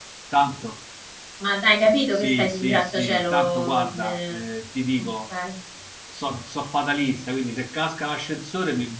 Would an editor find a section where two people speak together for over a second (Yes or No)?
Yes